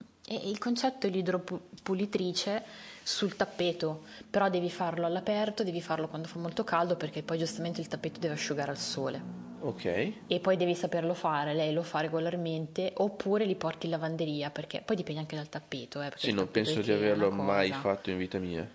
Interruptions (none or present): present